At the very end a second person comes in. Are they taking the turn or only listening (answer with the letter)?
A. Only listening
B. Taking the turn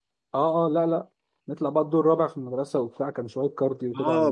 B